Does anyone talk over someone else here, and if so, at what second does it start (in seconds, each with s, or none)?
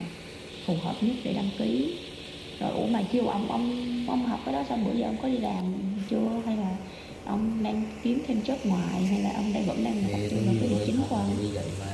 10.0 s